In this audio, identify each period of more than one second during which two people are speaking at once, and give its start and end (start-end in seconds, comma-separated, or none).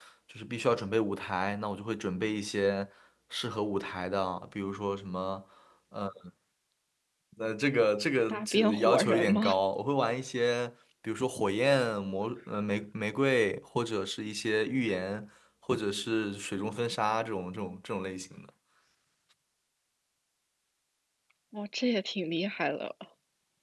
8.3-9.6